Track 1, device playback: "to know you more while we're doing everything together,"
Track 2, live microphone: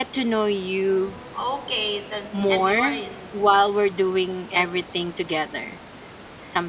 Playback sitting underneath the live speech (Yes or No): No